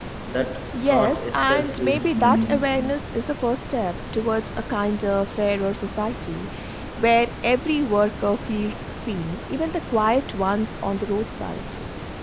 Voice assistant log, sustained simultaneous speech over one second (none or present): present